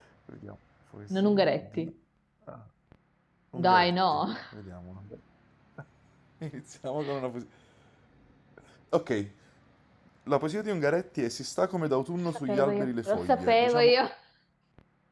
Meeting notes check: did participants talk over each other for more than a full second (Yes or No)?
Yes